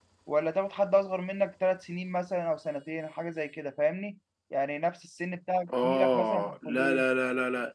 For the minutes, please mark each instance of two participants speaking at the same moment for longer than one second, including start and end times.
5.8-7.0

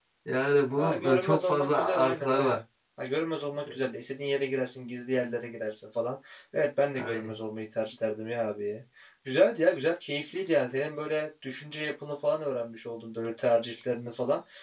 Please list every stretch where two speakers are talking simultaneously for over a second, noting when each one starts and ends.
0.8-2.6

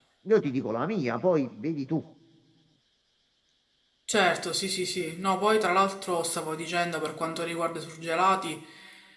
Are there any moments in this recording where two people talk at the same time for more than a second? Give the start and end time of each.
none

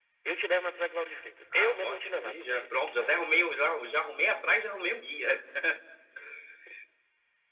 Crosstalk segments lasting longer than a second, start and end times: 1.6-3.4

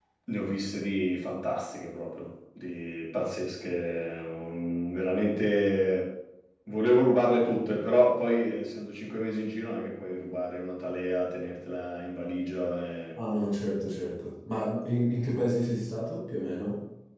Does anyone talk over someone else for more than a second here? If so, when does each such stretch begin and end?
none

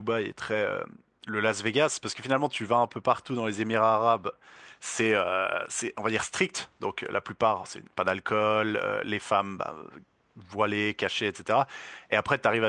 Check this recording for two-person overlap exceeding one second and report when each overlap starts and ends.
none

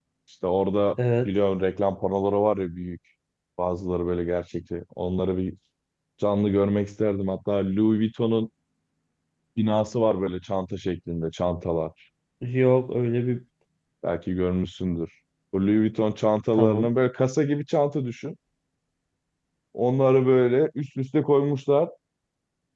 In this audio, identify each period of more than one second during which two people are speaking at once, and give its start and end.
none

